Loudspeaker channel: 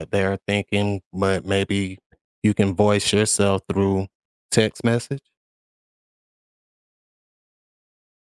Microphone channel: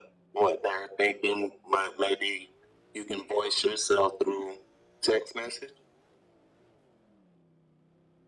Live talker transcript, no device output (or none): none